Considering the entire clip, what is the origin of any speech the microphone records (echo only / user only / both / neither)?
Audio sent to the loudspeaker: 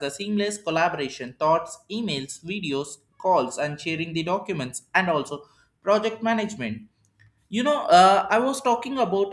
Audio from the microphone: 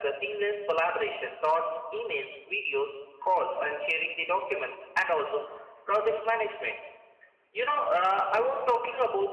echo only